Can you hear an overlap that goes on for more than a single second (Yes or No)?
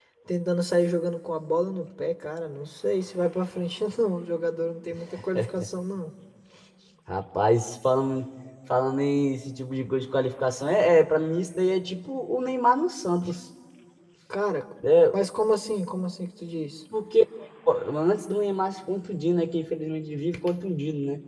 No